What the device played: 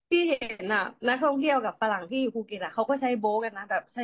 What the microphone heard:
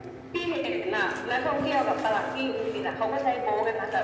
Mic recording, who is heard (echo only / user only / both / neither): echo only